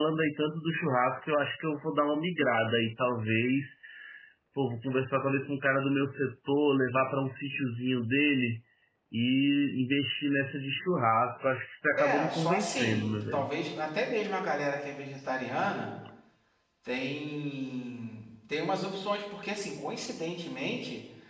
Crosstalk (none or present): present